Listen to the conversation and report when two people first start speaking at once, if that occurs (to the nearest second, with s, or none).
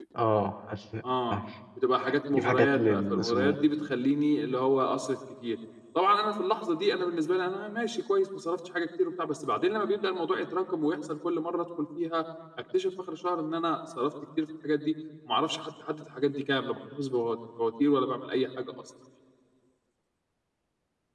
2 s